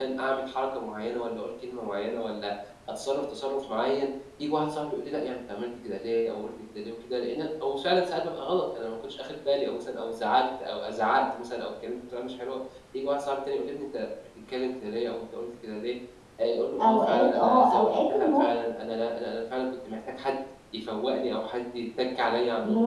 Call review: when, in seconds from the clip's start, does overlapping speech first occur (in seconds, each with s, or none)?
16.8 s